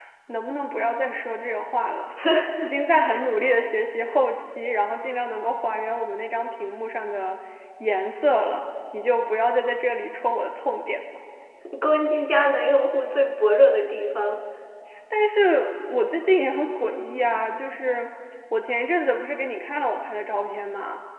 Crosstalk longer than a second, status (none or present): none